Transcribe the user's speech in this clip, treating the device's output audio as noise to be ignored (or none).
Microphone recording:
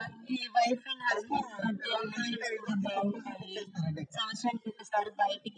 none